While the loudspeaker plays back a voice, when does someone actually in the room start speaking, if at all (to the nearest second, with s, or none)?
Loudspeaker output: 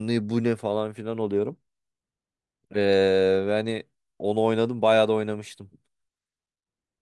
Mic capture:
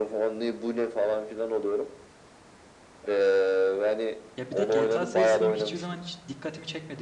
4 s